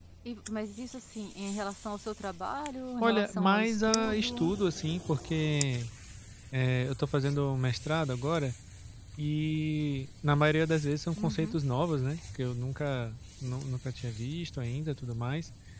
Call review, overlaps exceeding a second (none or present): present